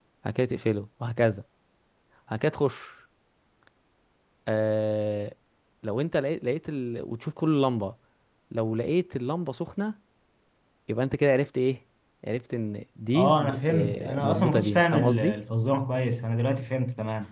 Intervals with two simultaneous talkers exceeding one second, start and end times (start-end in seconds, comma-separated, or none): 13.1-15.4